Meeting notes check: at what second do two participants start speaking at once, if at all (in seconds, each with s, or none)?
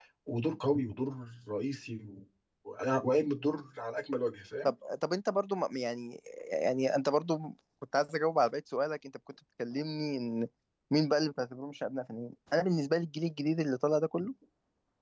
none